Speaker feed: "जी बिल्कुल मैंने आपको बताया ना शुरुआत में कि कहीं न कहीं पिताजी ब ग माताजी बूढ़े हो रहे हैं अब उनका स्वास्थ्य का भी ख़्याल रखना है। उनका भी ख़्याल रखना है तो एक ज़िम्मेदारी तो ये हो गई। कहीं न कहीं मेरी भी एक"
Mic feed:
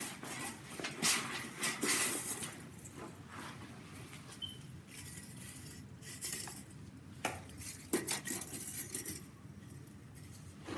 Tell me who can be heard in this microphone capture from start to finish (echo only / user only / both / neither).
neither